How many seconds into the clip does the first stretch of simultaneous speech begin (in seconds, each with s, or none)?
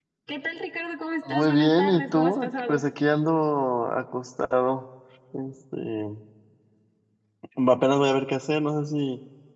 1.3 s